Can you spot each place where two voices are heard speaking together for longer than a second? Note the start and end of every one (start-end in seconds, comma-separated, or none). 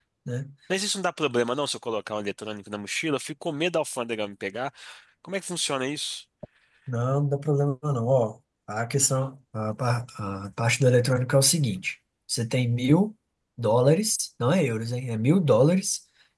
none